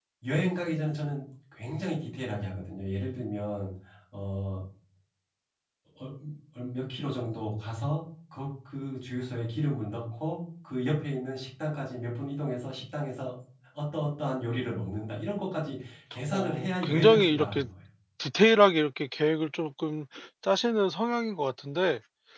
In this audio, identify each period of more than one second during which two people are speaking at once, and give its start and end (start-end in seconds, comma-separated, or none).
16.3-17.6